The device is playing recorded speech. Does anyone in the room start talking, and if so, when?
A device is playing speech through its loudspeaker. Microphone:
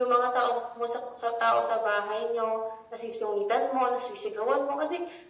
none

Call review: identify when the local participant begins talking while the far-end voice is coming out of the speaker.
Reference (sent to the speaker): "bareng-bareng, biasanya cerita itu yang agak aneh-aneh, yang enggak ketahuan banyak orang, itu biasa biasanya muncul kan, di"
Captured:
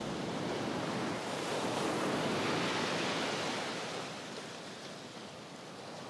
none

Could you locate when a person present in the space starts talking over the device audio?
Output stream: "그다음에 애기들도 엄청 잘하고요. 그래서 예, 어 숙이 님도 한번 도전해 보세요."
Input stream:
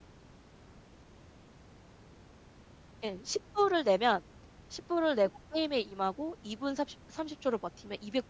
3.0 s

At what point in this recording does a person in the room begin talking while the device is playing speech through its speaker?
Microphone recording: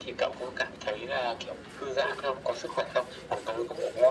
none

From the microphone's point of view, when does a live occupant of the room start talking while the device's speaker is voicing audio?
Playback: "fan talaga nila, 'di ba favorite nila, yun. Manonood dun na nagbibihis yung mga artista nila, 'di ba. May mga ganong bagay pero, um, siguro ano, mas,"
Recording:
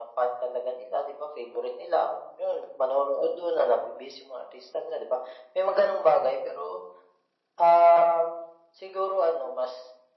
none

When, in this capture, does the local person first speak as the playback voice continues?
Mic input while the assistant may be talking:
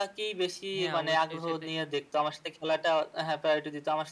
0.8 s

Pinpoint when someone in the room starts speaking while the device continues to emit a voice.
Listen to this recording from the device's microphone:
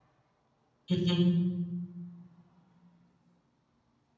0.9 s

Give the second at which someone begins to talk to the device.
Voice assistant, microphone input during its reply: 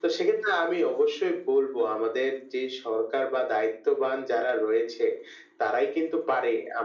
none

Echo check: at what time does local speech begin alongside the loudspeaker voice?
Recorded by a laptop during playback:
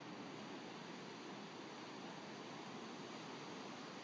none

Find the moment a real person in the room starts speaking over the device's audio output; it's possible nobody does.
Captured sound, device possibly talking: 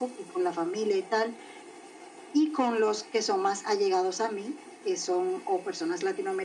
none

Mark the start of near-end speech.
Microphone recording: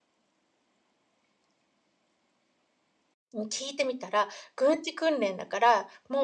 3.3 s

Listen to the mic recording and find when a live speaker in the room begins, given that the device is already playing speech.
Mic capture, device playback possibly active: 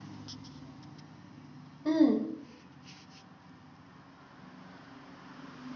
1.8 s

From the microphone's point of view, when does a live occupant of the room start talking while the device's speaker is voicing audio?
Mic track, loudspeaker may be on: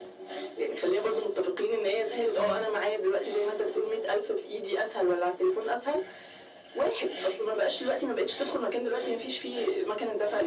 2.4 s

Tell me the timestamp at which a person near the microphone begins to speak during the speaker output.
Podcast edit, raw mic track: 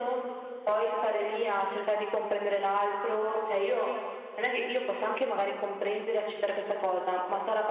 none

